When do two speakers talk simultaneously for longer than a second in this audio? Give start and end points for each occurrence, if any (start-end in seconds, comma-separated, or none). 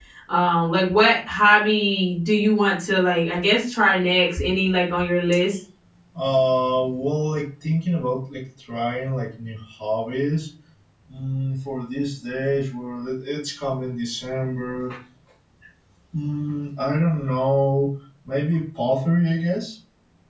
none